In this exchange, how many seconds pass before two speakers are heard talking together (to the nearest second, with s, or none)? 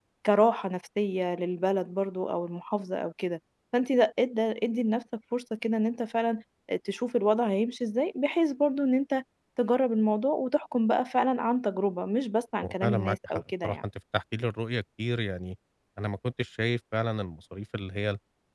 13 s